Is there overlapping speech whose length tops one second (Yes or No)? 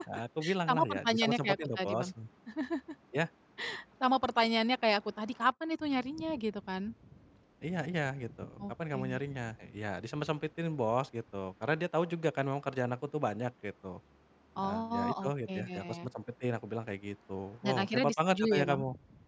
Yes